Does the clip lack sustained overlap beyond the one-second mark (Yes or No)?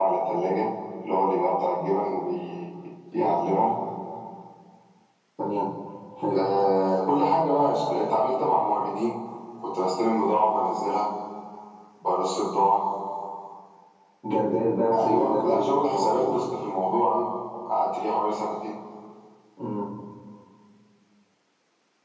No